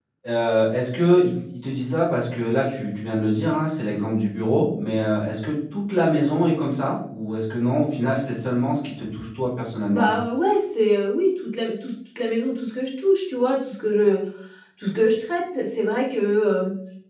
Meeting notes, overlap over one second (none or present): none